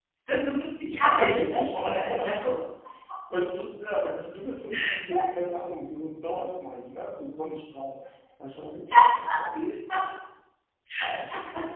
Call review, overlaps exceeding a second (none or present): present